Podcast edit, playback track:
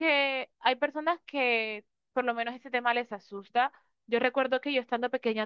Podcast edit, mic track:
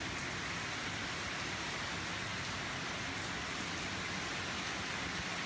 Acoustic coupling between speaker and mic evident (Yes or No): No